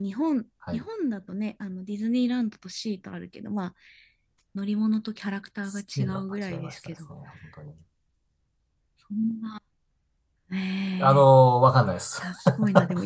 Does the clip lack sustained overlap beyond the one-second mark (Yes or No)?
No